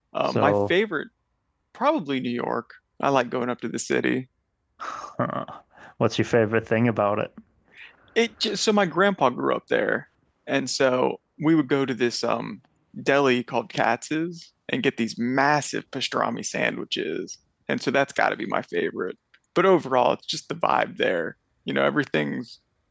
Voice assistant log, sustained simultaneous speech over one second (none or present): none